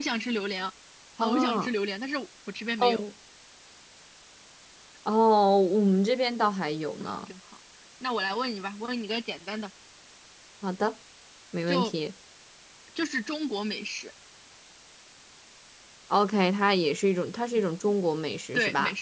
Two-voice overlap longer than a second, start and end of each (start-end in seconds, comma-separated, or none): none